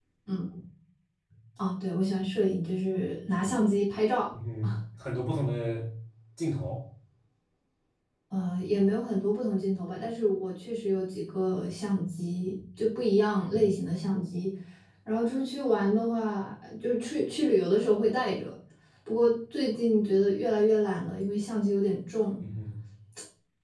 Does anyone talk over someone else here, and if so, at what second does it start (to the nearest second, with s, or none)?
none